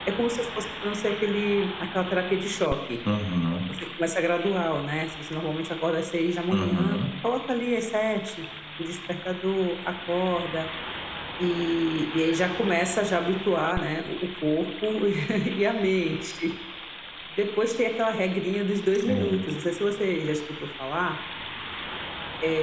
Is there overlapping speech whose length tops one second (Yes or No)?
No